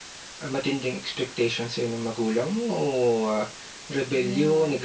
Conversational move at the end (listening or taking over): listening